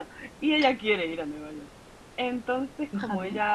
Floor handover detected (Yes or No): No